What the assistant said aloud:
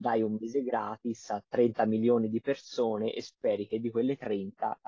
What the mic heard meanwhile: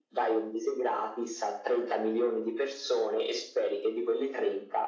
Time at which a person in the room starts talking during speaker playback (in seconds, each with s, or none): none